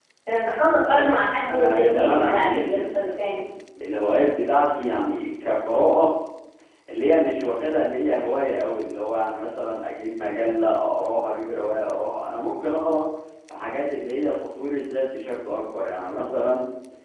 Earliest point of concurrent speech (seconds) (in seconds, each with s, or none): 0.8 s